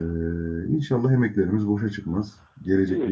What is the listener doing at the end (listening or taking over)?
listening